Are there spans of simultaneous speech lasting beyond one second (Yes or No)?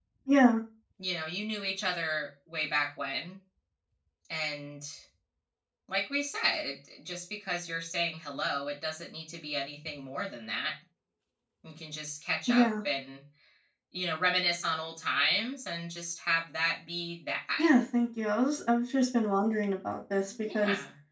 No